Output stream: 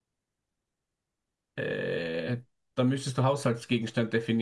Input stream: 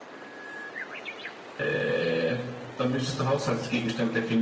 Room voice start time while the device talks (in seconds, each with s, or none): none